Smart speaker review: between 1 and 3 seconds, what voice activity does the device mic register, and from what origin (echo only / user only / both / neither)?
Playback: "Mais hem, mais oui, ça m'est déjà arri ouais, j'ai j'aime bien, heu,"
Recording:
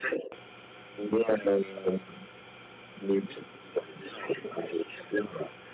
echo only